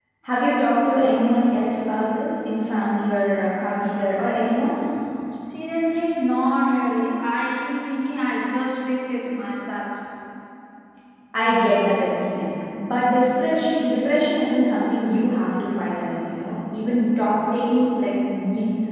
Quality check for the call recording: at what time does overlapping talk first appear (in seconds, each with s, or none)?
none